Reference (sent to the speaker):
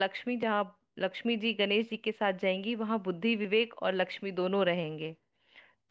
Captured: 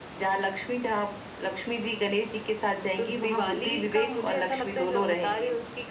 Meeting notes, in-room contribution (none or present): present